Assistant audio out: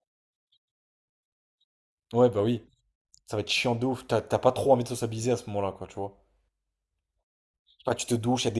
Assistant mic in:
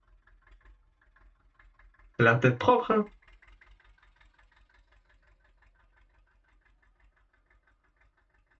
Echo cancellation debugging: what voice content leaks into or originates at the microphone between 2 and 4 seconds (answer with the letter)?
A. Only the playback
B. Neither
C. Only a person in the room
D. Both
C